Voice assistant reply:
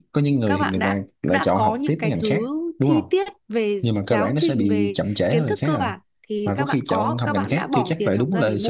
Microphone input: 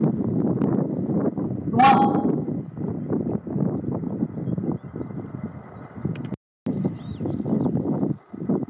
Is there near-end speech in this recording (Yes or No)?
Yes